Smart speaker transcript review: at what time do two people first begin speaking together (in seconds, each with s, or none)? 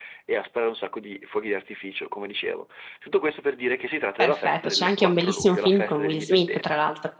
4.2 s